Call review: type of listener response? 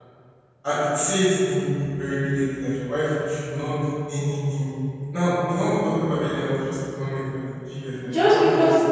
taking over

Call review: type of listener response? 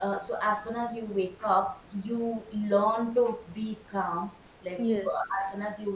listening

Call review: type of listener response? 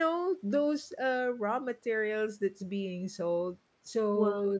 listening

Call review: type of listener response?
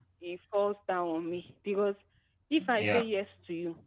listening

